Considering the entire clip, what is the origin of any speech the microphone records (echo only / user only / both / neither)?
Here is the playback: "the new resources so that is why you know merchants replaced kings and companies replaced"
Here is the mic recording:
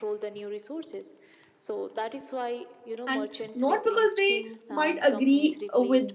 both